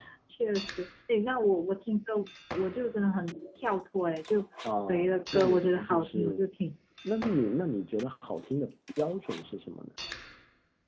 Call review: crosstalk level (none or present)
present